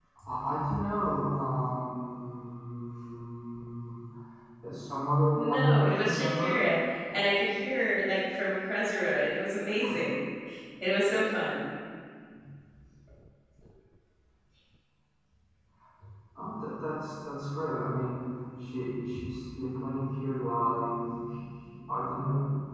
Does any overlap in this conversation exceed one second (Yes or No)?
Yes